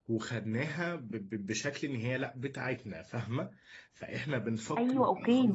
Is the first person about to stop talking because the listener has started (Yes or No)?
Yes